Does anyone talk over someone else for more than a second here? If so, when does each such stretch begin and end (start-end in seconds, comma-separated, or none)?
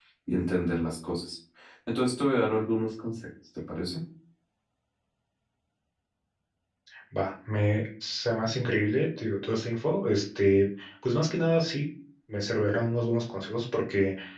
none